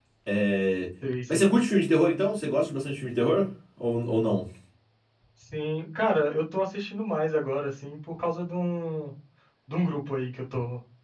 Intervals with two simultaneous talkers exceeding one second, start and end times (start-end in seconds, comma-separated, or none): none